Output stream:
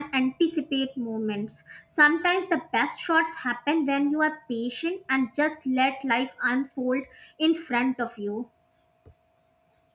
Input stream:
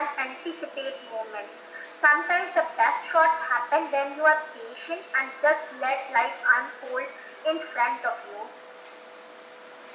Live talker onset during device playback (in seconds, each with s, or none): none